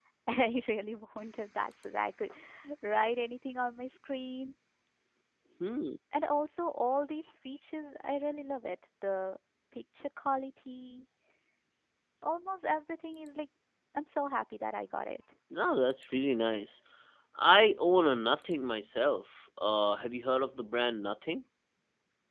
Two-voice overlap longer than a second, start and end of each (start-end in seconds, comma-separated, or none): none